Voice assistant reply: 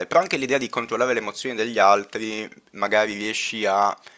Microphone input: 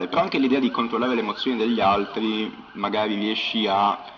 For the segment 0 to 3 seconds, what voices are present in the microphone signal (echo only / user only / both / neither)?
echo only